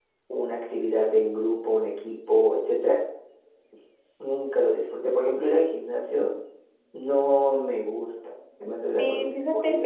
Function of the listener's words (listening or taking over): taking over